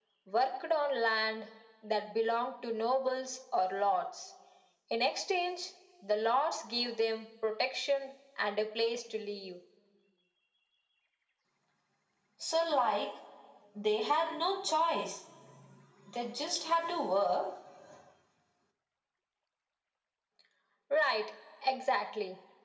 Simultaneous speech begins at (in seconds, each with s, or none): none